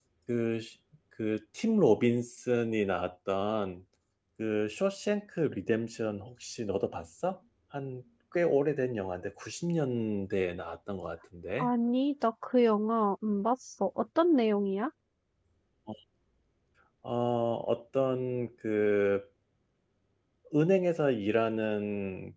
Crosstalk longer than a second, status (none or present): none